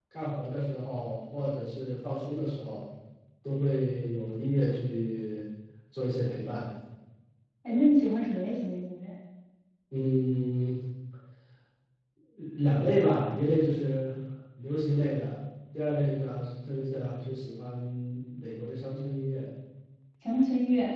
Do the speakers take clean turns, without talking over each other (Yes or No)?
Yes